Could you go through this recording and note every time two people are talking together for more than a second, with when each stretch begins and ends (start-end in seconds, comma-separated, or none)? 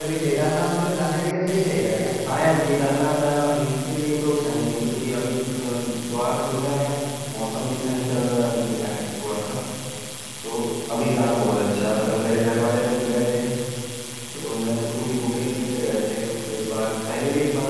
none